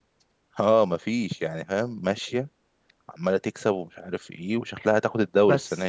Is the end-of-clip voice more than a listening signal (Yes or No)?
Yes